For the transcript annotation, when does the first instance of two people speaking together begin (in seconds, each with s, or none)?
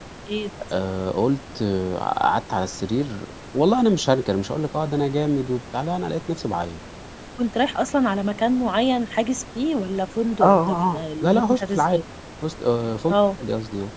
10.4 s